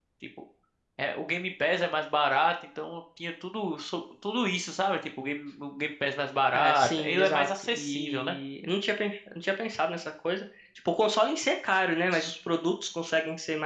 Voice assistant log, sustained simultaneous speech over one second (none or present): present